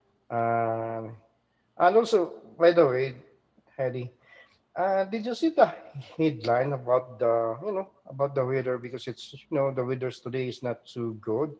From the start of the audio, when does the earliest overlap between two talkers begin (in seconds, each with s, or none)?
none